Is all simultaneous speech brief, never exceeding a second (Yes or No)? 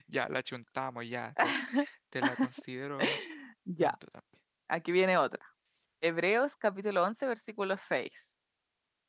Yes